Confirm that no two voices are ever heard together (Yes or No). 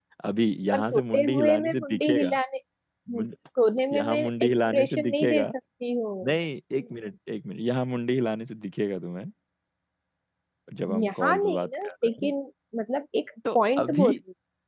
No